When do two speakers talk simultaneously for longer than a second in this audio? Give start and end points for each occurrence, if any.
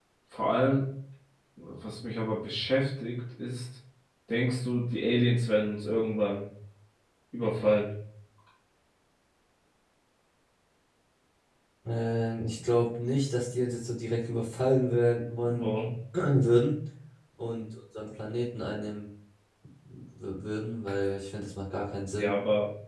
none

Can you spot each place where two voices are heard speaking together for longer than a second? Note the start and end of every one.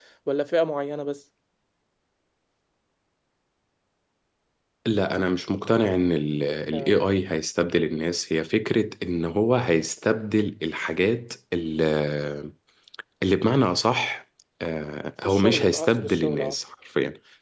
15.2-16.6

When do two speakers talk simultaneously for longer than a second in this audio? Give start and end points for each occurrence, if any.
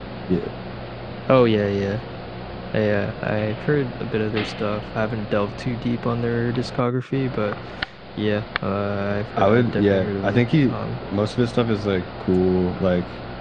9.4-10.8

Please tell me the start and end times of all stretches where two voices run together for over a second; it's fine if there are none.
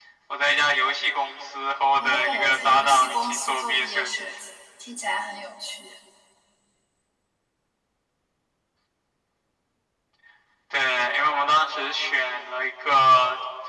2.0-4.4

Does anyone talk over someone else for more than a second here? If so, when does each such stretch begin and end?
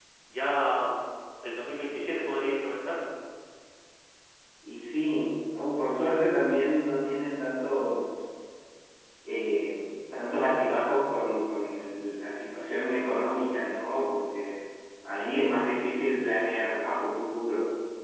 none

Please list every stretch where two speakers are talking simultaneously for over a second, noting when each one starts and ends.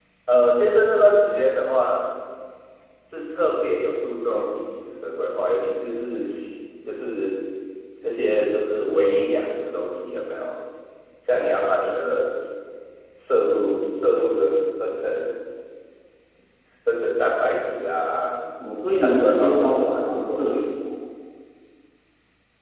19.0-20.7

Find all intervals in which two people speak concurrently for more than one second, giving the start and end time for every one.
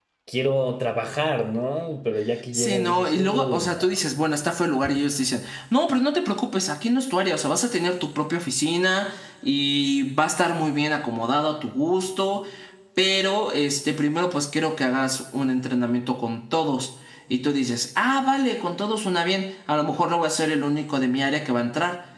2.5-4.0

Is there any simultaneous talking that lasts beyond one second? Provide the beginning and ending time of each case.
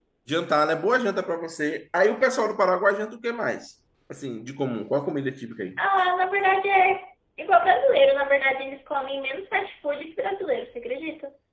none

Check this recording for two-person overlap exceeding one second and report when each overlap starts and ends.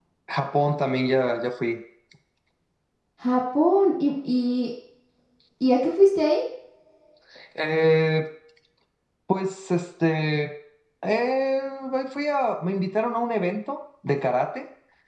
none

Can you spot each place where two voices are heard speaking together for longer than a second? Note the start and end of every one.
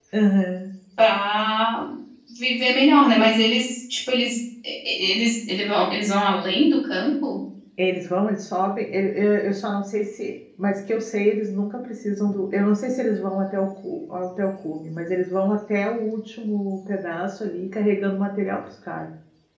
none

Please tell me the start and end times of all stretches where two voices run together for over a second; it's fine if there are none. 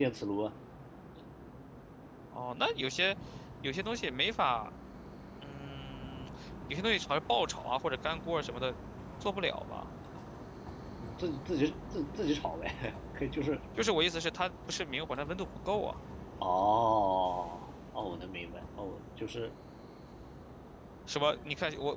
none

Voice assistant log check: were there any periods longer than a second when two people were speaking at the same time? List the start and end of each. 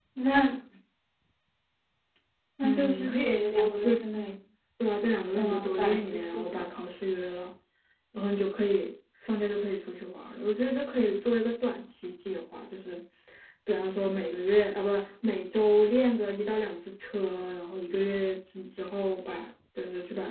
2.6-3.9, 5.3-6.7

